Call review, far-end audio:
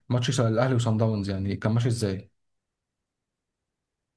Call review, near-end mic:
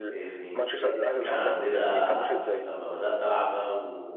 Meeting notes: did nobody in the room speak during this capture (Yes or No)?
No